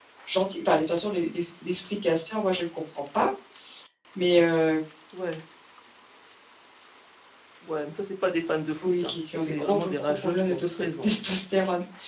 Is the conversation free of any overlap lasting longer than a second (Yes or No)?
No